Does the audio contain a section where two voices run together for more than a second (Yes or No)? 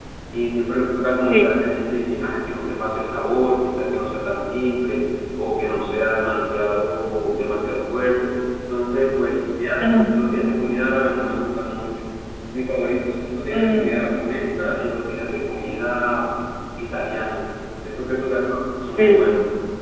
No